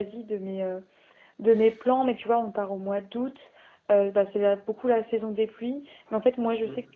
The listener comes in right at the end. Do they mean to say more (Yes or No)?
No